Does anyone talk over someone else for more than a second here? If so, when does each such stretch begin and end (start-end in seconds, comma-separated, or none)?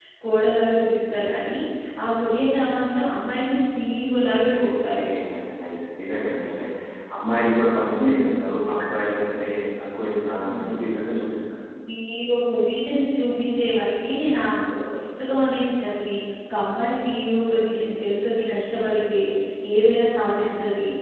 none